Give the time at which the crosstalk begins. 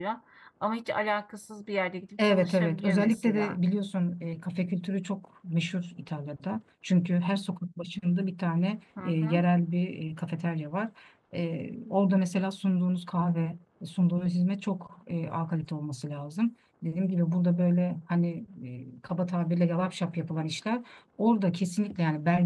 2.2 s

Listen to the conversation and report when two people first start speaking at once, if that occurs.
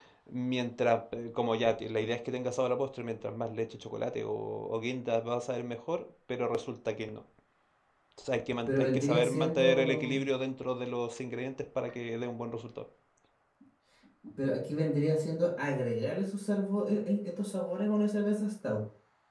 8.7 s

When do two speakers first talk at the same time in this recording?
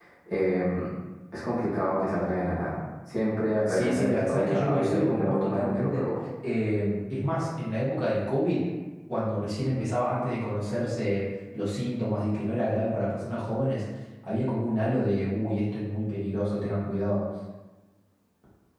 3.7 s

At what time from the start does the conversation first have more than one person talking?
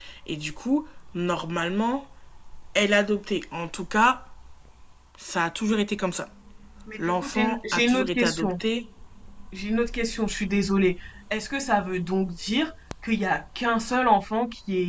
7.0 s

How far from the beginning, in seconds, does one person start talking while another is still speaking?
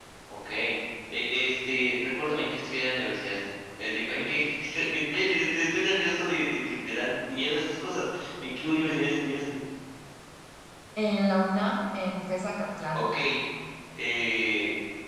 none

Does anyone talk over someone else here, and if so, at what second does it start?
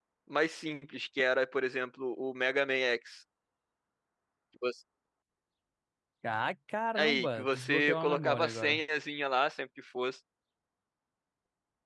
7.0 s

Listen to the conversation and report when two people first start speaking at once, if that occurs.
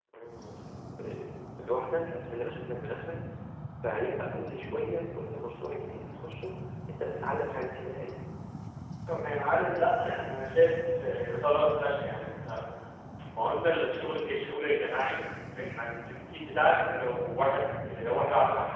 none

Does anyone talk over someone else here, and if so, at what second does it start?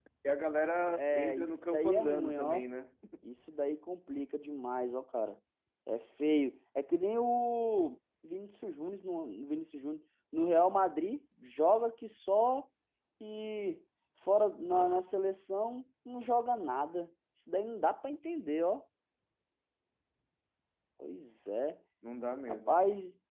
1.0 s

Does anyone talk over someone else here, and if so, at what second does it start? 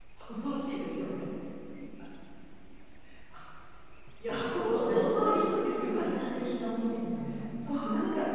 4.7 s

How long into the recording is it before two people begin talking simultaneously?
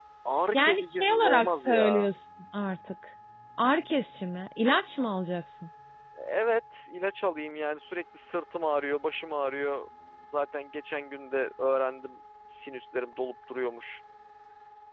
0.5 s

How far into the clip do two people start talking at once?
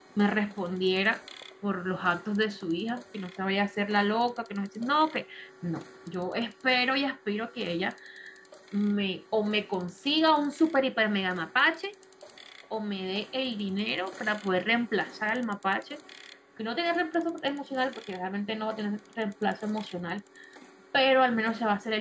none

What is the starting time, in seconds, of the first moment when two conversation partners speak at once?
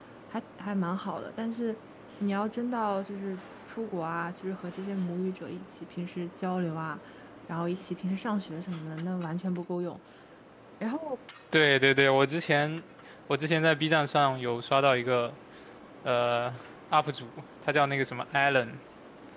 none

